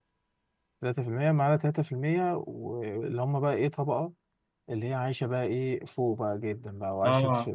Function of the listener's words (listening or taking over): listening